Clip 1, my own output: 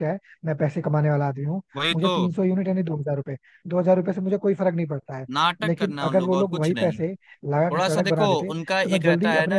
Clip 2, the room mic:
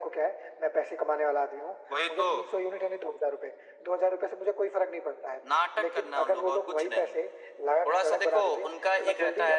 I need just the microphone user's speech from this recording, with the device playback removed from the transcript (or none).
none